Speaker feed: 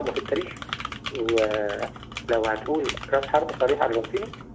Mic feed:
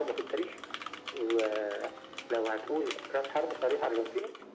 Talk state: echo only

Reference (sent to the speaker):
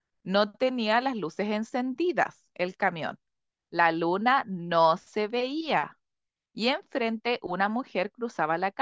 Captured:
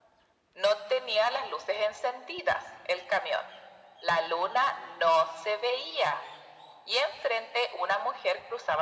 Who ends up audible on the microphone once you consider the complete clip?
echo only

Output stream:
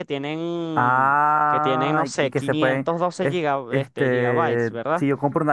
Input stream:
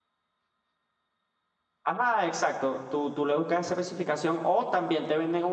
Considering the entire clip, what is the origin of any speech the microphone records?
user only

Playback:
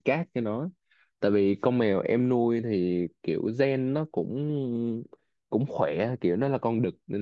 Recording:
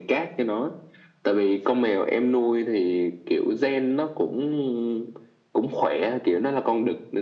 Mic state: echo only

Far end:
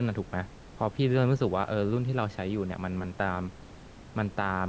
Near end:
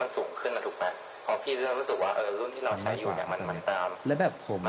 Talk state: both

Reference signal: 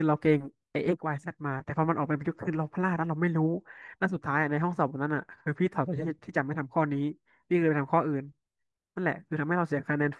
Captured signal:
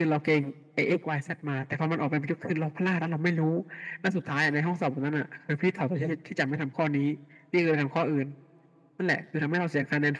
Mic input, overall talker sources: echo only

